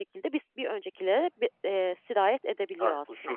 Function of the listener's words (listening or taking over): taking over